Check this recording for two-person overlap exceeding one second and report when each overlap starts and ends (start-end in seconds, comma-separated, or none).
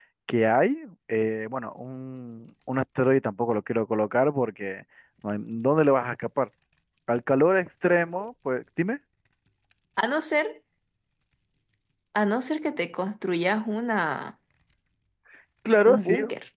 none